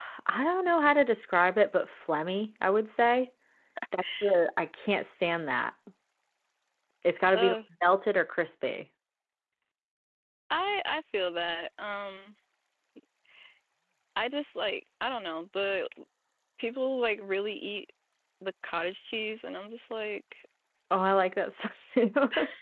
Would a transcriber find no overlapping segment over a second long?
Yes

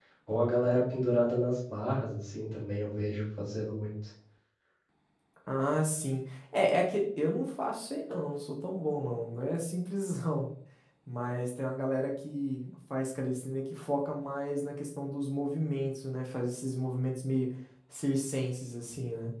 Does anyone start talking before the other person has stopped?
No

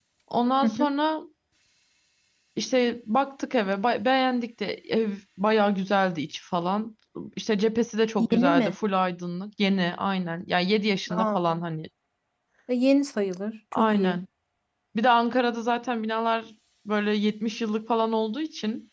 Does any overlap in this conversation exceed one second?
No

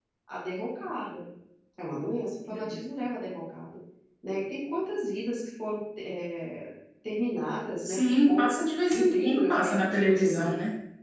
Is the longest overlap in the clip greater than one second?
Yes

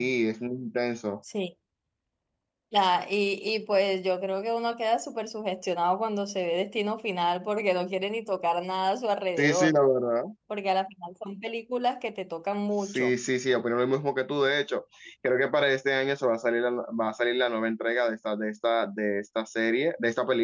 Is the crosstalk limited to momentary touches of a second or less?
Yes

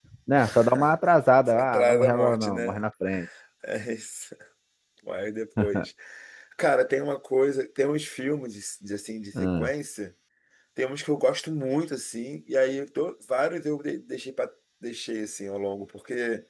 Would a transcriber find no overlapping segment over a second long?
No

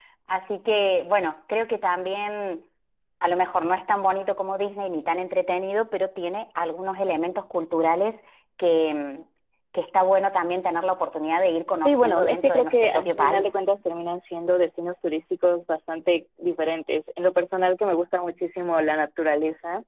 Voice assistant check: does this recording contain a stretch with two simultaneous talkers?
Yes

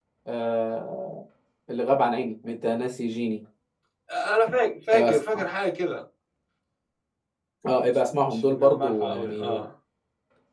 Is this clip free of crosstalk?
No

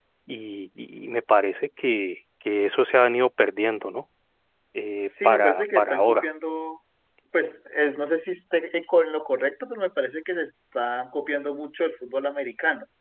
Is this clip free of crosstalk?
No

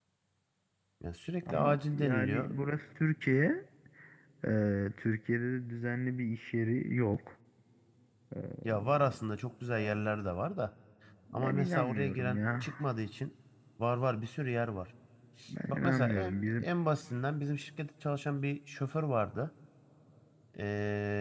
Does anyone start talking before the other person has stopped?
Yes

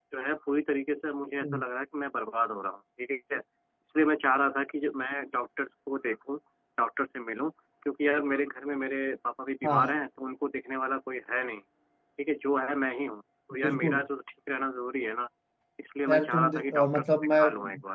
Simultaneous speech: Yes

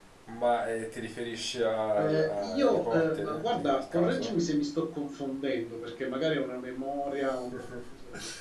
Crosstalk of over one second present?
Yes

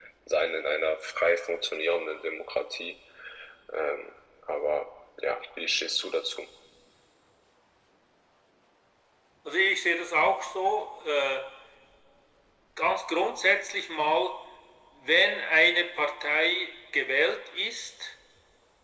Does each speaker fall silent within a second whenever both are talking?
Yes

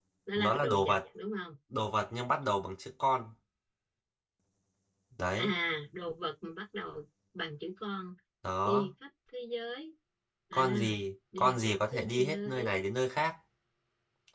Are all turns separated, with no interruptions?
No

